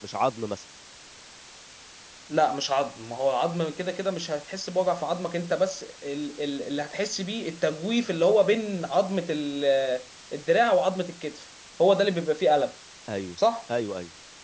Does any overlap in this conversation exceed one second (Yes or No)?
No